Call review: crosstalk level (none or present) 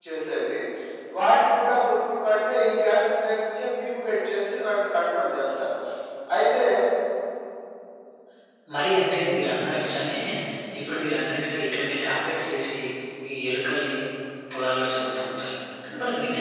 none